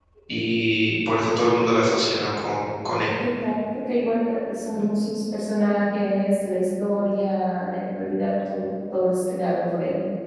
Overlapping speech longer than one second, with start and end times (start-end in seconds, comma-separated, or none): none